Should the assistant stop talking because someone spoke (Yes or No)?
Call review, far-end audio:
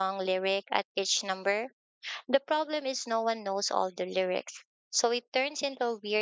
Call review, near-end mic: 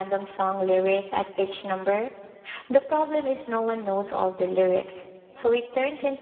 No